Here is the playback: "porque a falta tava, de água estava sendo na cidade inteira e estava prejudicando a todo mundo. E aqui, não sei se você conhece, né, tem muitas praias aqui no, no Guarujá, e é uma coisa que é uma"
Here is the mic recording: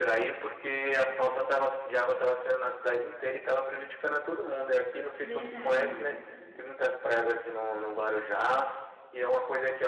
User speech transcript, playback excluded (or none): verdade.